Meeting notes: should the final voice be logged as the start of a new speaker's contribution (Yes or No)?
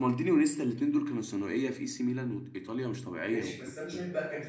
Yes